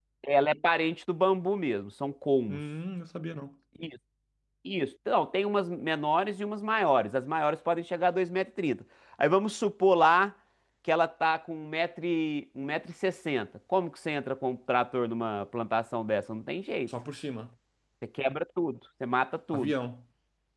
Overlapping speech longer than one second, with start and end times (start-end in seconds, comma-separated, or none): none